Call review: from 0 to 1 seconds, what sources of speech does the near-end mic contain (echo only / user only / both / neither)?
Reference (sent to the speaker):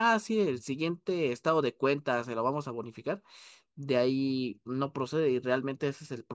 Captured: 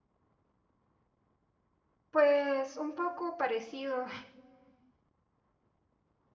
neither